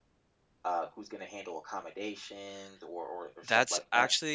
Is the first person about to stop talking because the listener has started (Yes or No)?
Yes